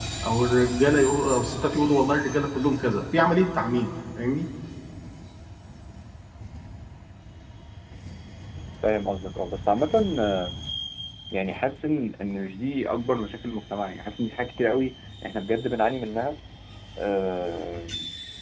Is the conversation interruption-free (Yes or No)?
Yes